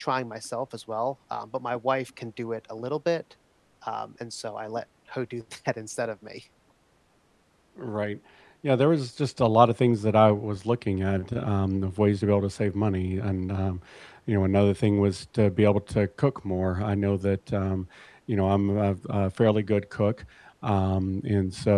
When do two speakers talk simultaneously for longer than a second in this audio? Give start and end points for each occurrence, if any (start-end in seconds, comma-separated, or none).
none